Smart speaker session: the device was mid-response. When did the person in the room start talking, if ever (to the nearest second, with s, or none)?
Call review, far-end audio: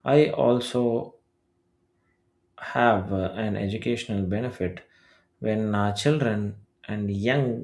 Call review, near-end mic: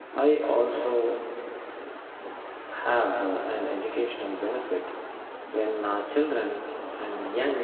none